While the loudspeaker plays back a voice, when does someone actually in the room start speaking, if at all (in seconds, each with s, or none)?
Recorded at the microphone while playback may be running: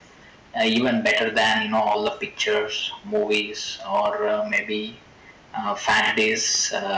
none